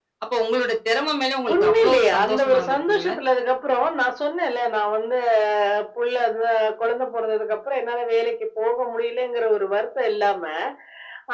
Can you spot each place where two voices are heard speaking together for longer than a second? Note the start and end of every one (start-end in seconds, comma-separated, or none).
1.5-3.1